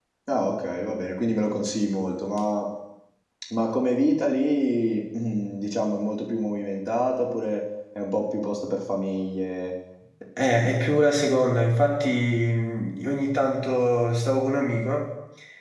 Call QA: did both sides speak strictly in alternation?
Yes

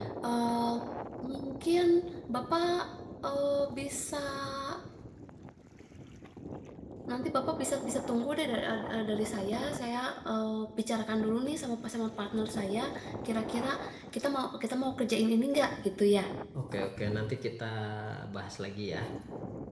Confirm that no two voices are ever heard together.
Yes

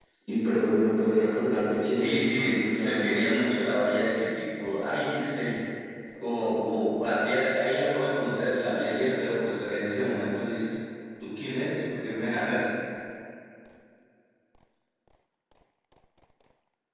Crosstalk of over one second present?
Yes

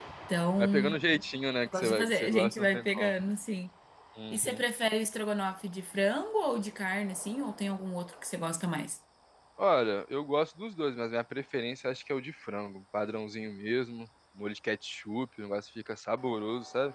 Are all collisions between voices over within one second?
No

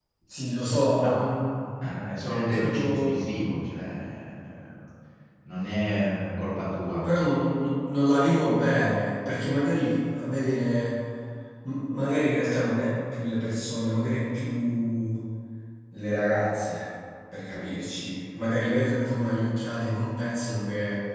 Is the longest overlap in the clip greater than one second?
Yes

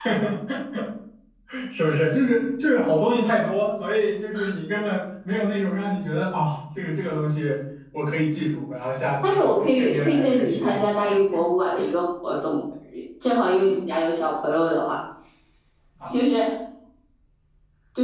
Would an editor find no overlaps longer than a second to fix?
No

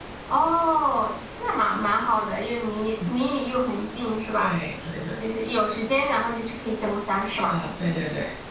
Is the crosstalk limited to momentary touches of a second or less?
Yes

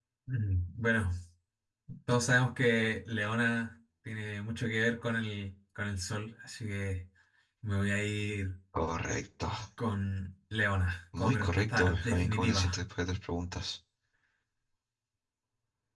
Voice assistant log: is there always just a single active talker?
No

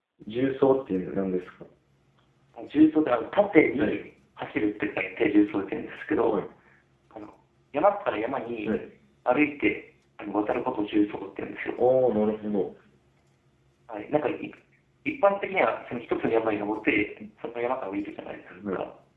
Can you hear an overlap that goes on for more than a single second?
No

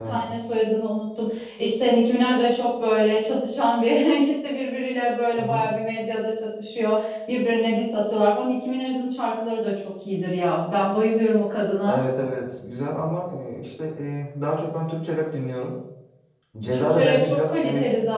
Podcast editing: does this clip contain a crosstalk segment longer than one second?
Yes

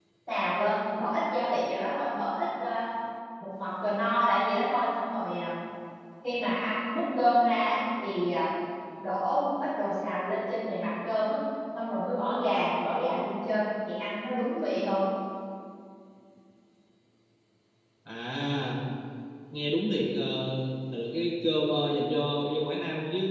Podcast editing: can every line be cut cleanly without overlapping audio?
Yes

